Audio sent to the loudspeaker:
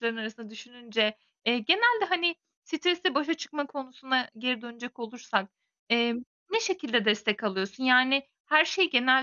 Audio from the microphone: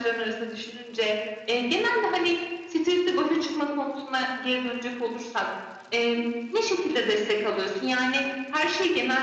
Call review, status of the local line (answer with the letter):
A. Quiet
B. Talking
A